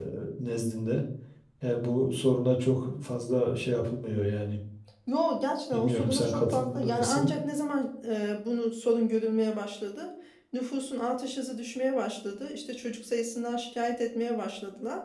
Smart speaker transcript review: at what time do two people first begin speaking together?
5.7 s

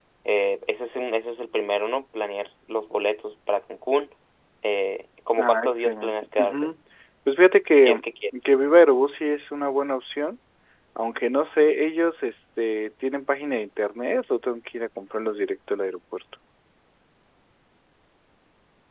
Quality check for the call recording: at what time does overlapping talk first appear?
5.4 s

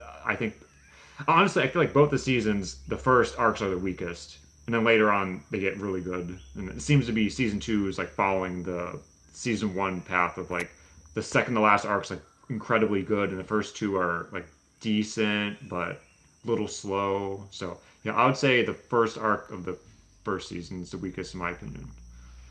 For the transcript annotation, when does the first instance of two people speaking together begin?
none

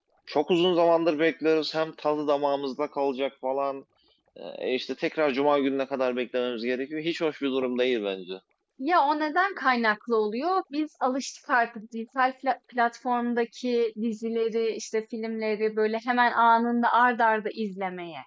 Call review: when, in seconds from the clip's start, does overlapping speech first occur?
none

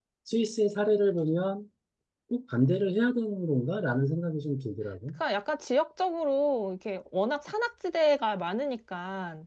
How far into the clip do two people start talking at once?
none

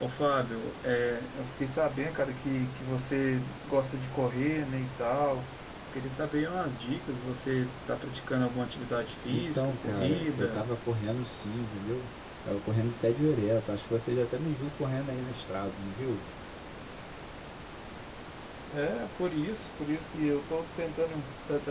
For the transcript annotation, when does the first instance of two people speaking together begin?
9.2 s

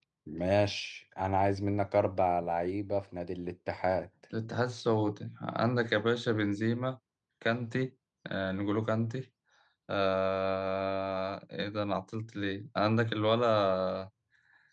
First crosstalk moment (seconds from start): none

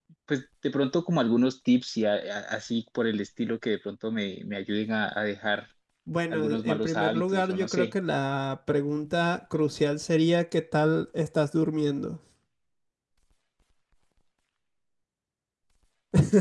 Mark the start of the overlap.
6.3 s

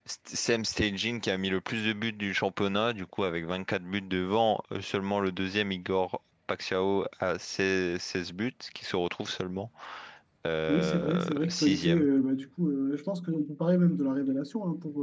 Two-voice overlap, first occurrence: 10.7 s

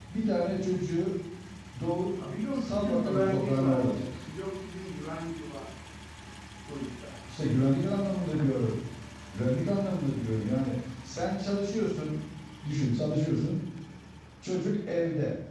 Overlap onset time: 2.6 s

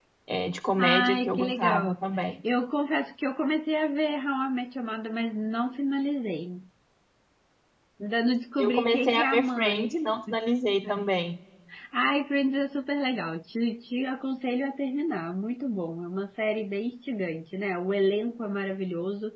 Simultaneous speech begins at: 0.8 s

